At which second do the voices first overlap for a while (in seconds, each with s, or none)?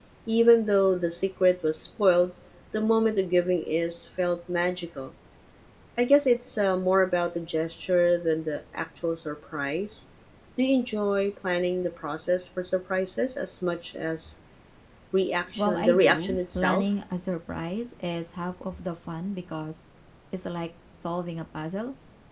15.6 s